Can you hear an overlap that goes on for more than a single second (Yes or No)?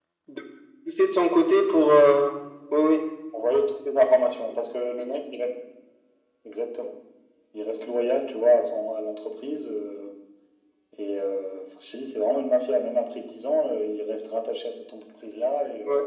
No